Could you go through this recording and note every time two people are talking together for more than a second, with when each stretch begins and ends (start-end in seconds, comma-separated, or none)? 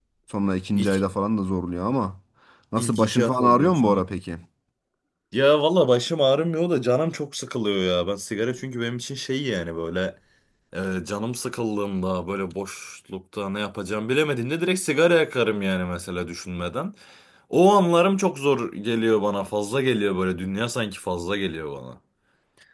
2.8-4.0